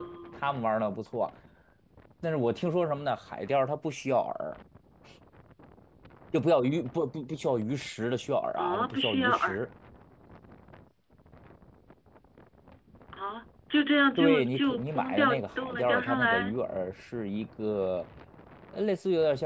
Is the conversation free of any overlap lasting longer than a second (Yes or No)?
No